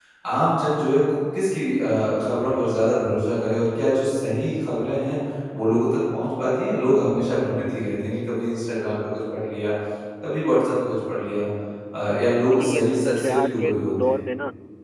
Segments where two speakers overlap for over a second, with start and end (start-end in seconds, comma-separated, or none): 12.5-14.2